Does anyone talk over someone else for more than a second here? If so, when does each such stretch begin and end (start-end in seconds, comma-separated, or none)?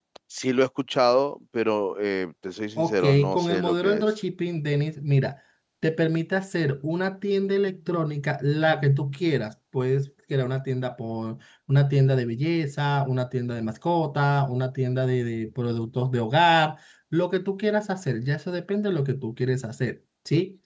2.8-4.0